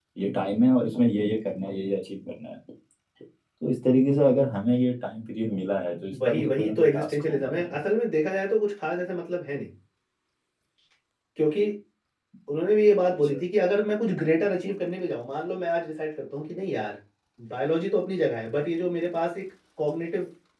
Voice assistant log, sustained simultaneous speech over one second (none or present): present